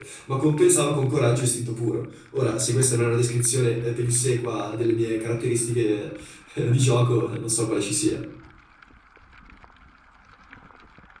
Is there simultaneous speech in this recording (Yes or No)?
No